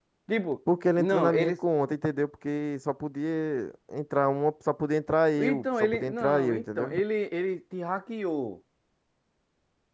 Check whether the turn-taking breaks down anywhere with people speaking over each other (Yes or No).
Yes